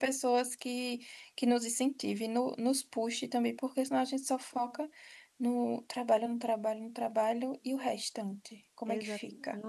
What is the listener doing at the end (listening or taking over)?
taking over